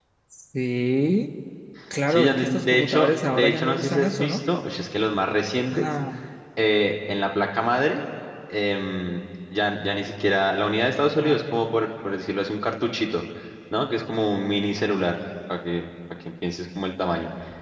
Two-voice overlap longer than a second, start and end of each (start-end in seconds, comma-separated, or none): 2.1-4.4